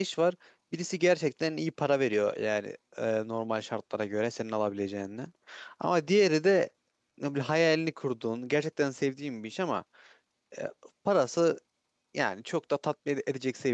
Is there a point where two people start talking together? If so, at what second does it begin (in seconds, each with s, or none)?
none